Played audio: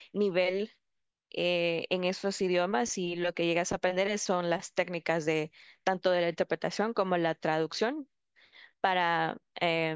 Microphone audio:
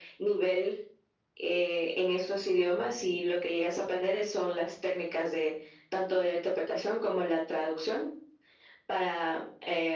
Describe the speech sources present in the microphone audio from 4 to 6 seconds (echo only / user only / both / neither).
echo only